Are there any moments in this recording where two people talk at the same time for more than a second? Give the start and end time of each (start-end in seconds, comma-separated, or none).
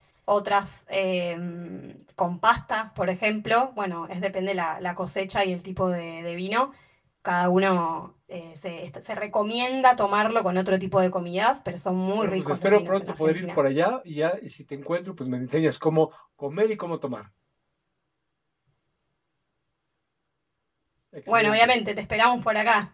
12.2-13.5